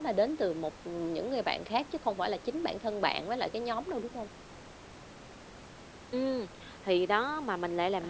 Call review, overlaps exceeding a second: none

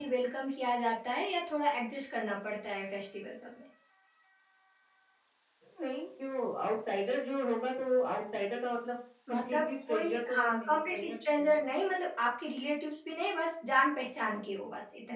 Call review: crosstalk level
present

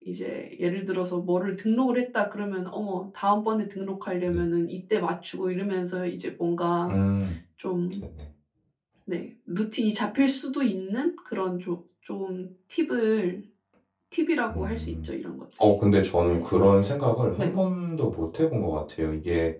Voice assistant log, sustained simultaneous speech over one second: none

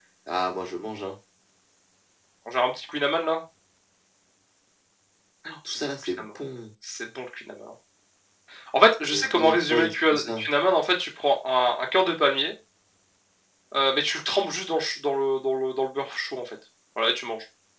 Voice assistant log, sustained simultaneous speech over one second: present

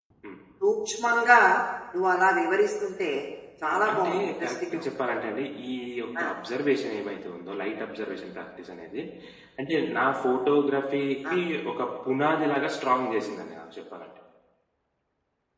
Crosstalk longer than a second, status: present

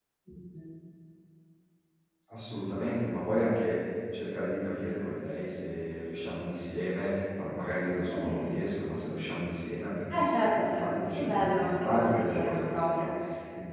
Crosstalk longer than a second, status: present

